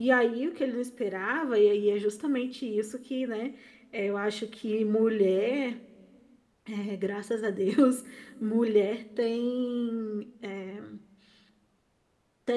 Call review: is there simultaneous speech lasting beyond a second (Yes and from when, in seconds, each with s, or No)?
No